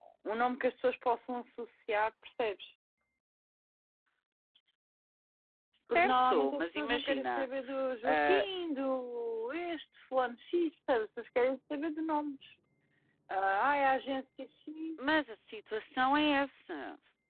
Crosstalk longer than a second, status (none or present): present